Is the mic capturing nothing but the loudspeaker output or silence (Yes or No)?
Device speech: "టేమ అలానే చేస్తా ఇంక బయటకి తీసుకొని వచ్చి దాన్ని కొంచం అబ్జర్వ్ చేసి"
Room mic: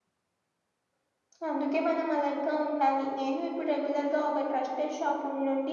No